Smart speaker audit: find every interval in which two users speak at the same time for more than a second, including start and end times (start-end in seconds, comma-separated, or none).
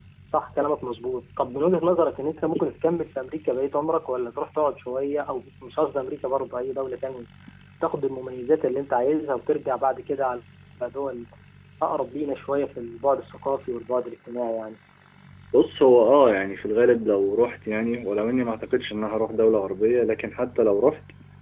none